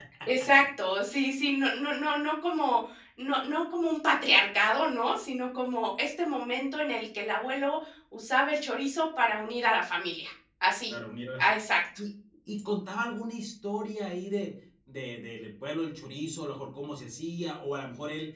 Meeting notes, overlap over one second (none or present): none